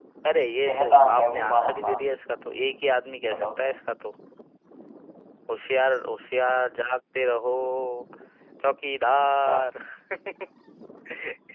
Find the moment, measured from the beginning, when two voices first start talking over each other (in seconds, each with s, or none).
0.7 s